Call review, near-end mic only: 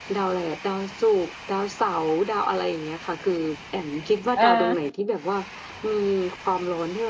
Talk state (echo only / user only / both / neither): both